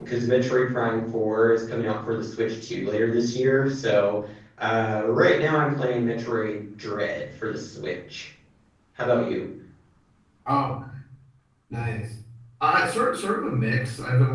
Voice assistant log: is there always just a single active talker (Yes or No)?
Yes